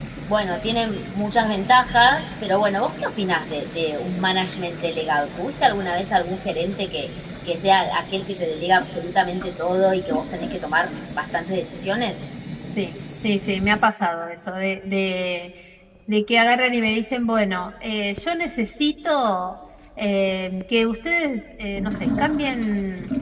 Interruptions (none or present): none